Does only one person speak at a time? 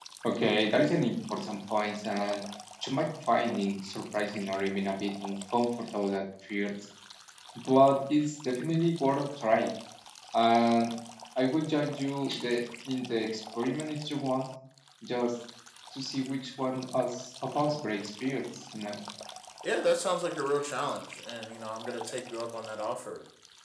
Yes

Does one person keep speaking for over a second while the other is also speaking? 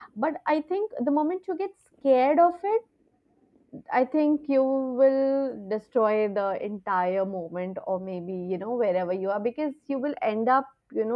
No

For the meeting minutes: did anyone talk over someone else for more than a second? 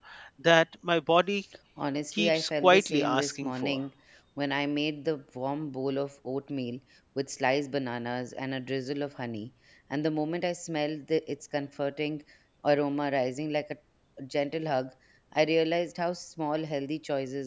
Yes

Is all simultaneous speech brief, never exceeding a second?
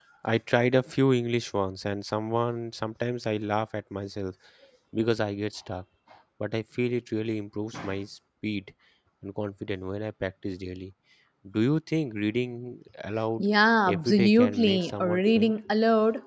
No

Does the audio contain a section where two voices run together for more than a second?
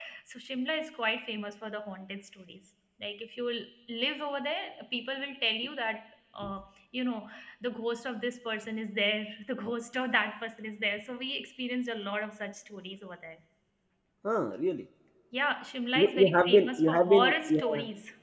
Yes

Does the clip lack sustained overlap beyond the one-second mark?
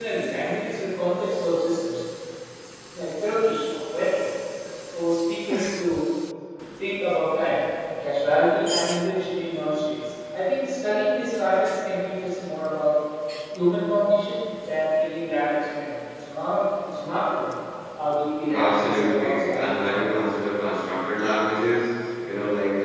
No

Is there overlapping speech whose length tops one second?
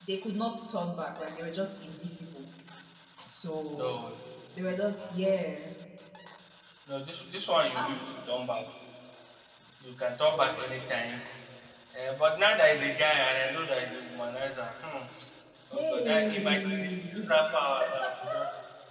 Yes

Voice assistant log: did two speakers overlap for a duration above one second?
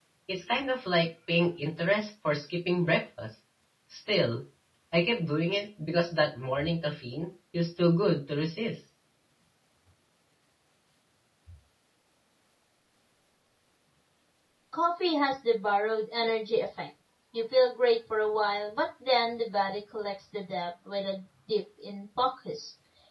No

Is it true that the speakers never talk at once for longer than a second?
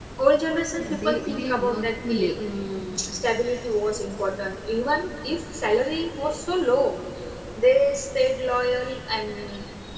No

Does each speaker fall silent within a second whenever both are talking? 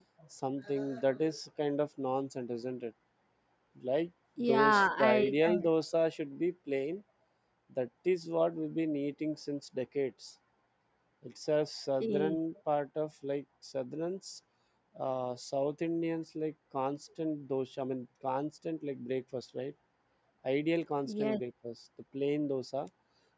No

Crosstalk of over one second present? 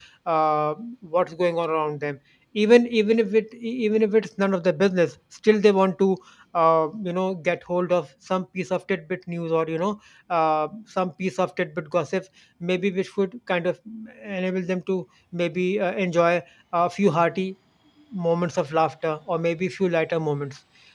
No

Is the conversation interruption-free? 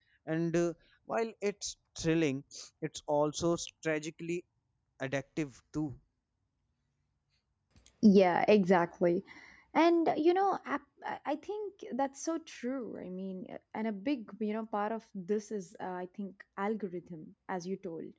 Yes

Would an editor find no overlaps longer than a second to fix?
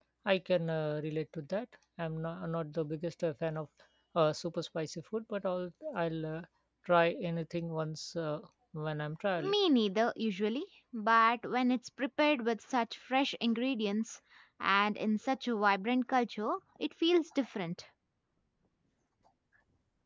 Yes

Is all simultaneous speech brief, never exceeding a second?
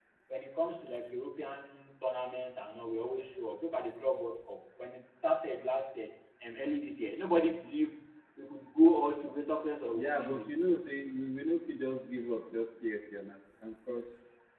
Yes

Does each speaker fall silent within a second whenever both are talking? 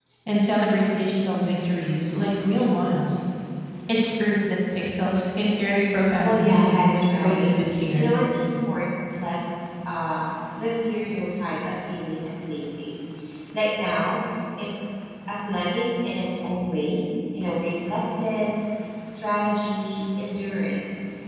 No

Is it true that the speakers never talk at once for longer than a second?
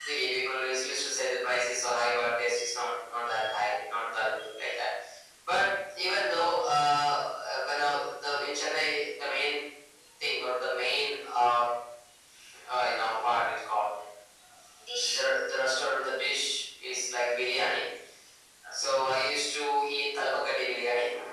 Yes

